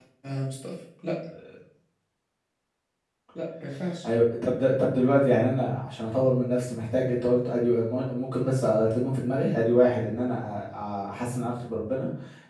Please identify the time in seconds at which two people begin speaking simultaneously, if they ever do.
none

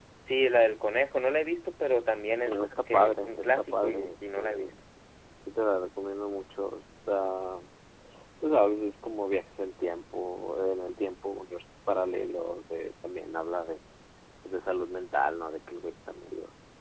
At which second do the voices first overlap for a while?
2.4 s

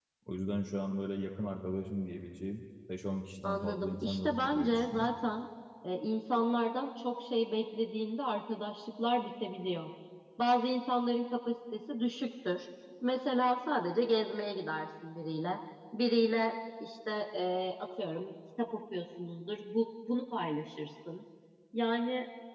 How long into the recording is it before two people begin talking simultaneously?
3.4 s

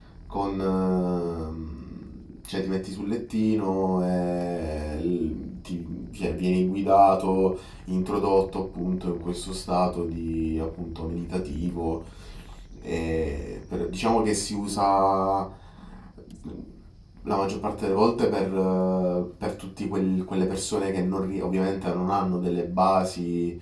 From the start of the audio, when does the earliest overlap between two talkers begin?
none

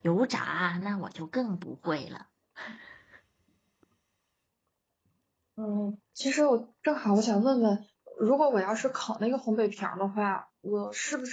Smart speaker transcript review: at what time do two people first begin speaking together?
none

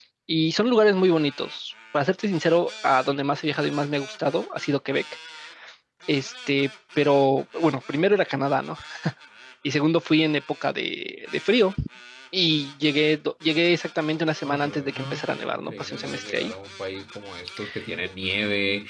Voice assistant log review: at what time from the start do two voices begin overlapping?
14.4 s

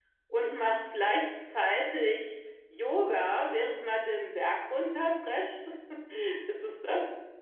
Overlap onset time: none

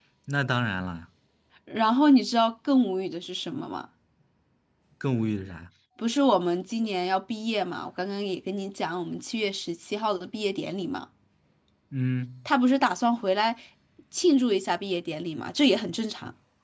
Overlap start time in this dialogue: none

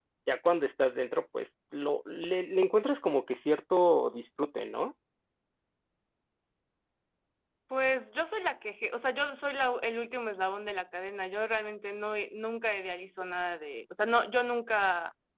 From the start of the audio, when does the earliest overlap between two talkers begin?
none

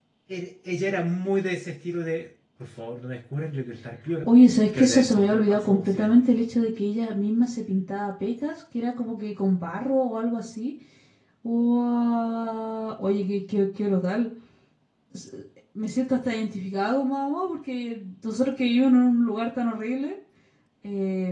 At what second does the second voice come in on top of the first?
4.8 s

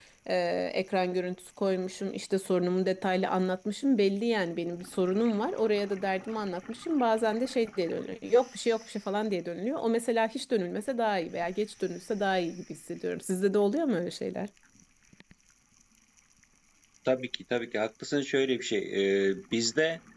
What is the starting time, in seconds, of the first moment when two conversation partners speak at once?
none

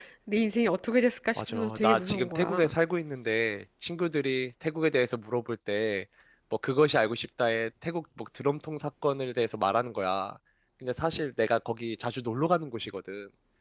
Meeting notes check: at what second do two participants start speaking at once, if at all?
1.4 s

